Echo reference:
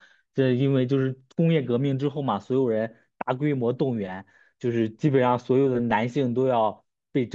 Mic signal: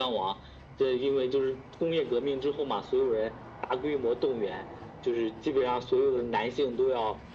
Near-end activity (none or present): none